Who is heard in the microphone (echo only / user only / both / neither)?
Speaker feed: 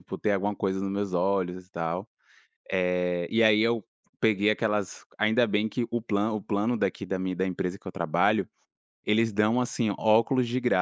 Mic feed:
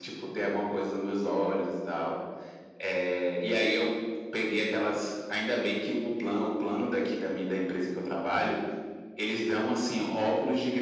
echo only